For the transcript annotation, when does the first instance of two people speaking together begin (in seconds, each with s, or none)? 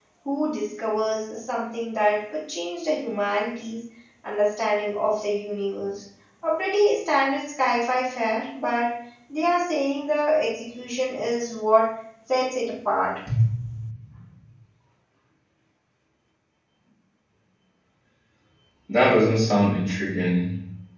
none